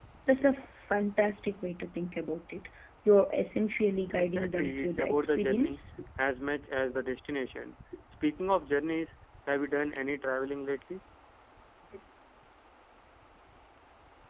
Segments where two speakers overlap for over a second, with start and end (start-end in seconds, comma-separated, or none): 4.2-5.8